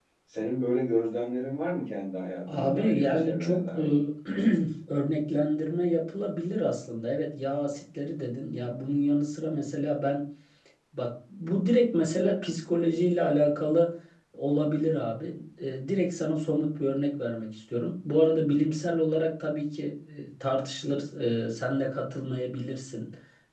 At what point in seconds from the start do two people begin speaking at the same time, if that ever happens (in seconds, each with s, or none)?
2.5 s